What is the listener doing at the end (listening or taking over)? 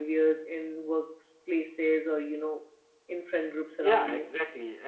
taking over